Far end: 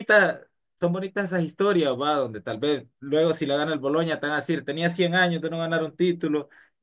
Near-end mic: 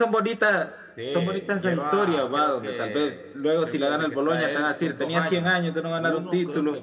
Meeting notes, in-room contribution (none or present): present